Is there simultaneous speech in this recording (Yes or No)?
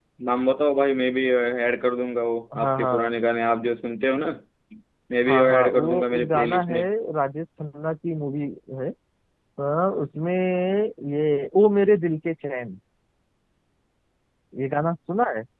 Yes